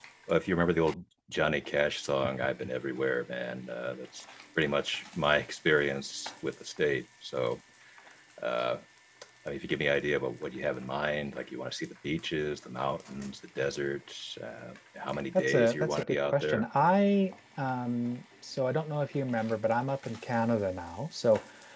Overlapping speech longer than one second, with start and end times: 15.3-16.7

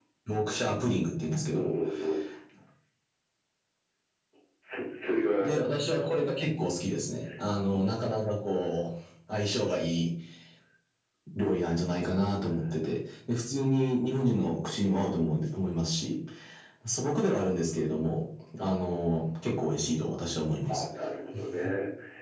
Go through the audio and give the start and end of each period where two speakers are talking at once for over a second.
none

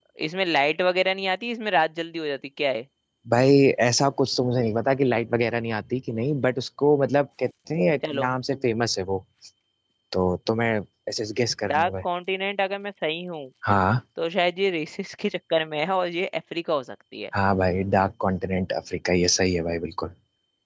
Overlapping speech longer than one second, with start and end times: none

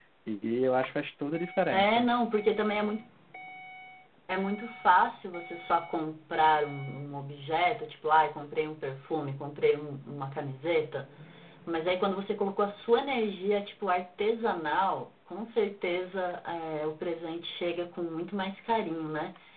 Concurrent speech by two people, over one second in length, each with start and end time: none

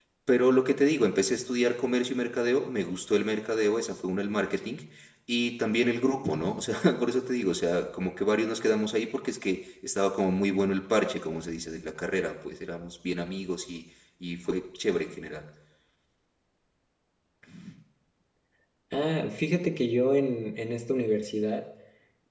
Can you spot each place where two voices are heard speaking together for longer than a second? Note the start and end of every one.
none

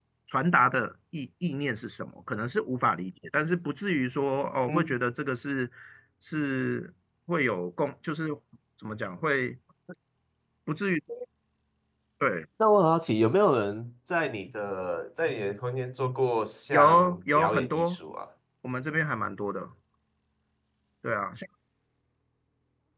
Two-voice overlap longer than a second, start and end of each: 16.7-18.0

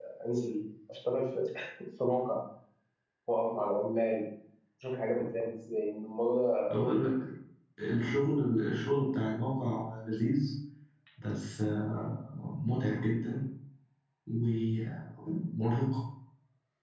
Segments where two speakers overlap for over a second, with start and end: none

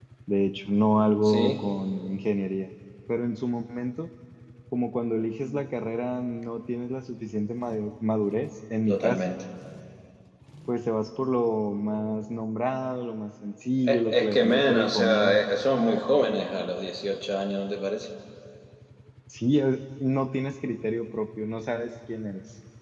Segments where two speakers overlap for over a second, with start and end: 13.8-15.4

